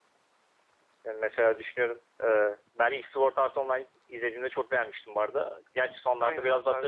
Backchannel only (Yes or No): No